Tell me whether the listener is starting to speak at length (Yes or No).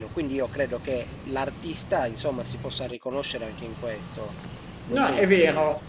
Yes